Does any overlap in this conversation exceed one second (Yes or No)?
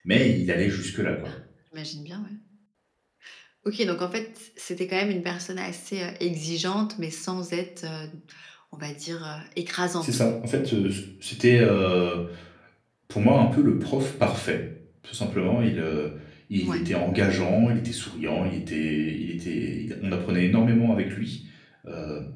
No